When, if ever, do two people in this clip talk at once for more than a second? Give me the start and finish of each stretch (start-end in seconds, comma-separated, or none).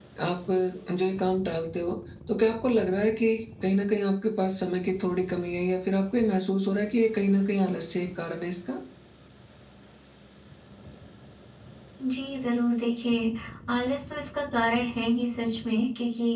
none